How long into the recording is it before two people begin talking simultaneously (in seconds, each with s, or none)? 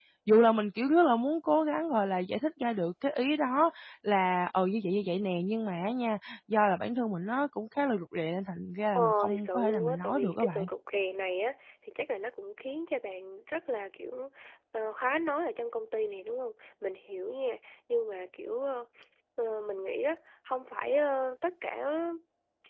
8.9 s